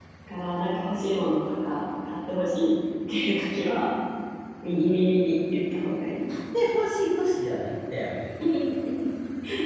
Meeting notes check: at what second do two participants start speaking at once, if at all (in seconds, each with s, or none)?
none